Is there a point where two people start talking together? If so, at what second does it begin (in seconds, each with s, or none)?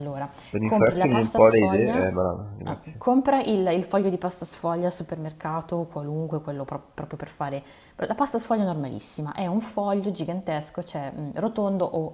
0.6 s